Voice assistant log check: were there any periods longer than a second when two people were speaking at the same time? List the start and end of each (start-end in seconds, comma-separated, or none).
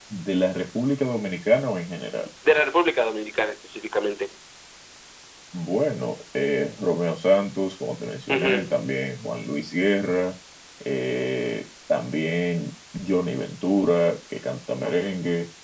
none